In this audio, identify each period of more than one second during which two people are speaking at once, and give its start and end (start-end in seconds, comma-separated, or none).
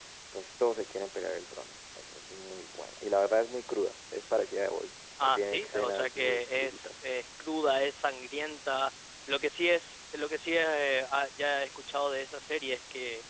5.2-6.9